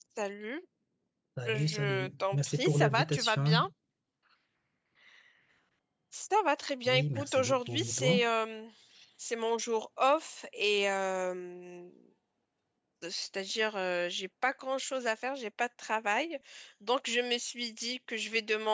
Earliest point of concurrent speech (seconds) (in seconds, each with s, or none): 1.4 s